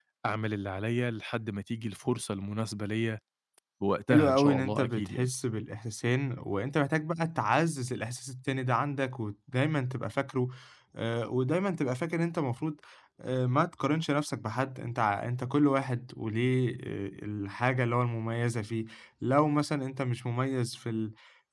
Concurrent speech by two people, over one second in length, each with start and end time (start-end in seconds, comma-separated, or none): 4.1-5.3